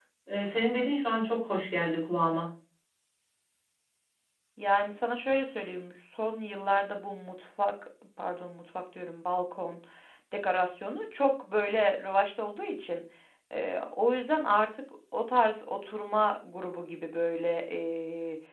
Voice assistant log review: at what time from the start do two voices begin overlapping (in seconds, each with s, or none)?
none